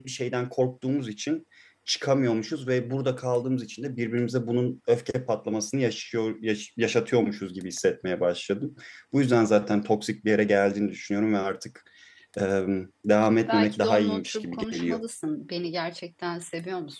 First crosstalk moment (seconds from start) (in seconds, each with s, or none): 13.5 s